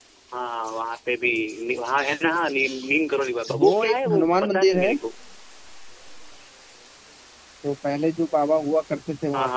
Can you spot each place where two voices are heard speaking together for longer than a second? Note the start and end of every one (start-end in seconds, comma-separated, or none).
3.6-4.9